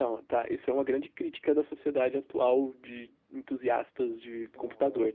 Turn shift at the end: Yes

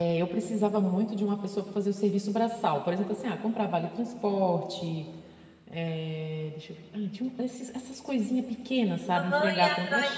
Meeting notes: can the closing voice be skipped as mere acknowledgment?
No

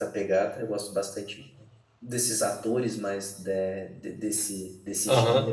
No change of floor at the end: No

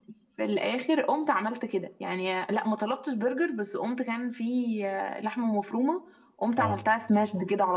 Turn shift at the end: No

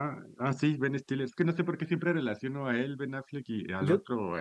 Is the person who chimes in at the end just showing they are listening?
Yes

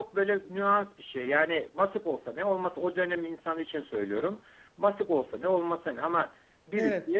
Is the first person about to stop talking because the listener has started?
No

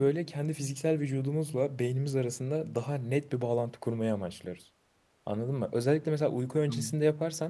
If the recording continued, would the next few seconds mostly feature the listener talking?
No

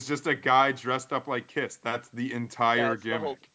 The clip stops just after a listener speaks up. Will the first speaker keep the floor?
No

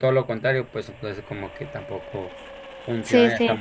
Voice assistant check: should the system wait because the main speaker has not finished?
No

